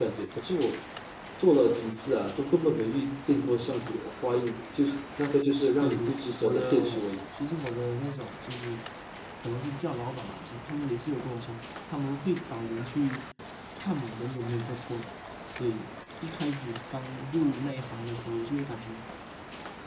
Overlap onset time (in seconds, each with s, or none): 5.8 s